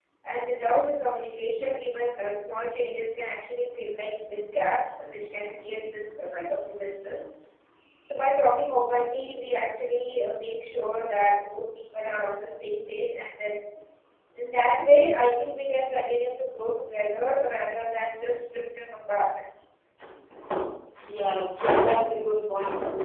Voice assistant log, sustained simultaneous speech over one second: none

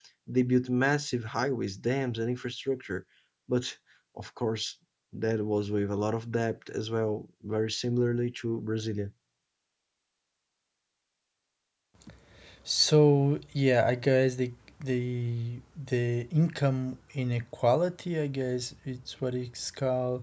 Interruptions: none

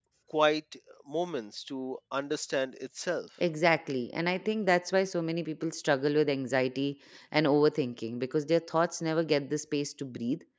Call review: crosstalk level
none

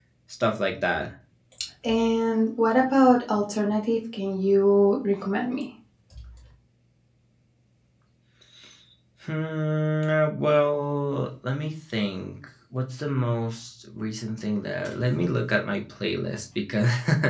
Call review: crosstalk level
none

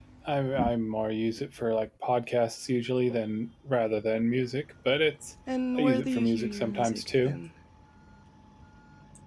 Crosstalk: present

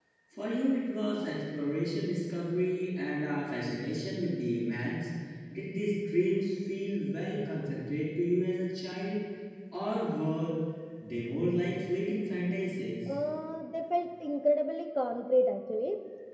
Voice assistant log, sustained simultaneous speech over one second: none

